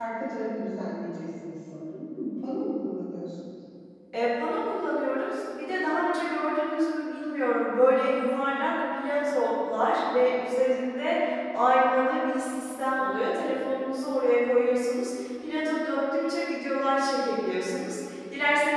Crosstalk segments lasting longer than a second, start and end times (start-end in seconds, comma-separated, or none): none